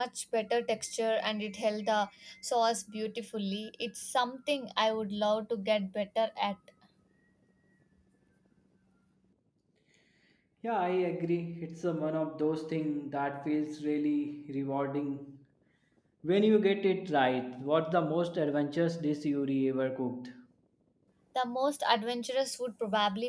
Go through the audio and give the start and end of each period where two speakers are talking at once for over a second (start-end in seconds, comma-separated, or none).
none